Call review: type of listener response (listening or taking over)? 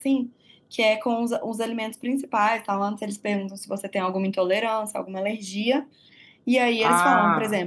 listening